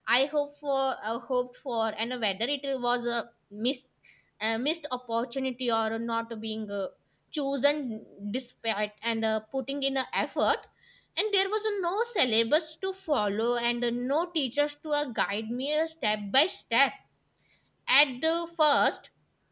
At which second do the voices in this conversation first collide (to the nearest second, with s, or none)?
none